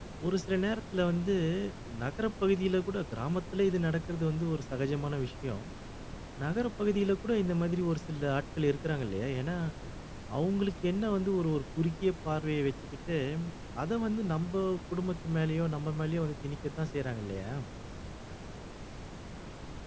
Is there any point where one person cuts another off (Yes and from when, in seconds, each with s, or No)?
No